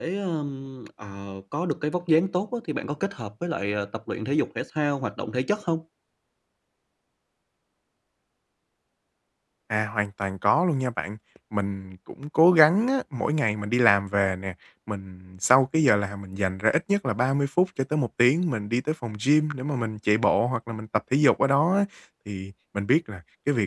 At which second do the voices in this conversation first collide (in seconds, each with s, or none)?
none